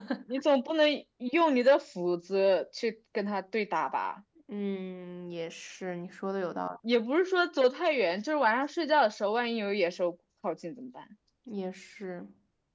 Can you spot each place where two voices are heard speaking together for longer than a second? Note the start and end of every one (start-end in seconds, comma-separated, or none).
none